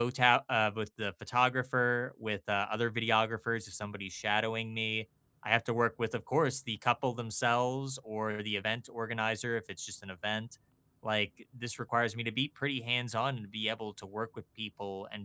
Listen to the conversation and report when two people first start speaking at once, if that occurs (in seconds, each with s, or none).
none